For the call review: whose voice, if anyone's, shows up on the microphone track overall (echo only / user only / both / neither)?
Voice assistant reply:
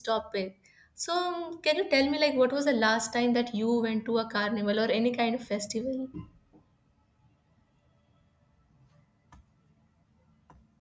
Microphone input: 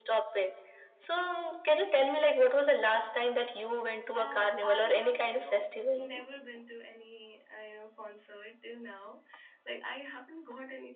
both